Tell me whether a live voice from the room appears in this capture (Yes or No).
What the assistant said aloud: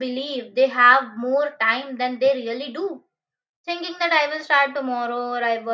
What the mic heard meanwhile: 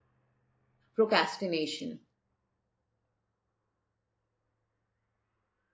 Yes